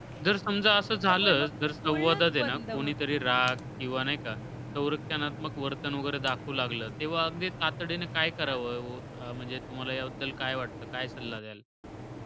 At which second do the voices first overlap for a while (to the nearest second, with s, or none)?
1 s